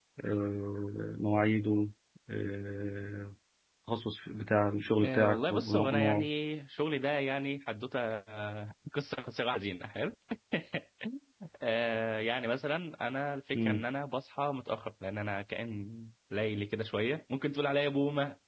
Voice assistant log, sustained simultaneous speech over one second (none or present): present